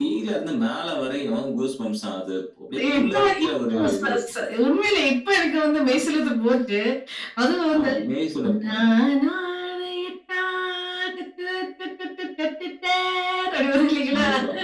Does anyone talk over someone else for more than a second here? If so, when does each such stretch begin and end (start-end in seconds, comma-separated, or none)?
2.8-4.2